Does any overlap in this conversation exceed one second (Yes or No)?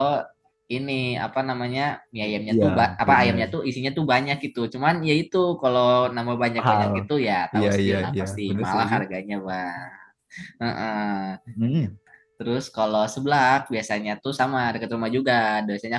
Yes